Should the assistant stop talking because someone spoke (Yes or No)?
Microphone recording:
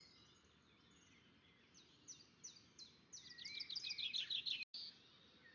No